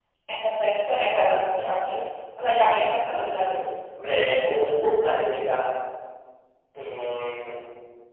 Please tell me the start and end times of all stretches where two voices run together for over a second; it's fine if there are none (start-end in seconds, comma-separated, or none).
none